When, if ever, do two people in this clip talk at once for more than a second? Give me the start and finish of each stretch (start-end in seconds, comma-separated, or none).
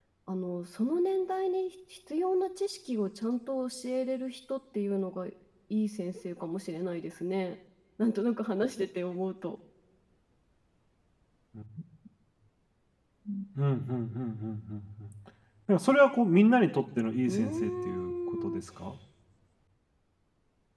17.3-18.6